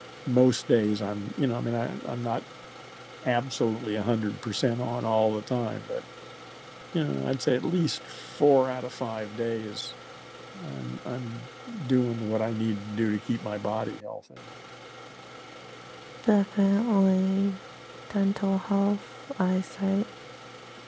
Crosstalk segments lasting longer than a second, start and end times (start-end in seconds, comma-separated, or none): none